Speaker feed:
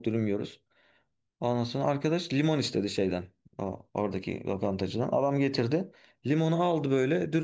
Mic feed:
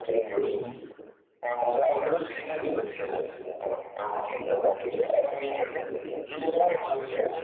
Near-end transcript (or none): Hı hı.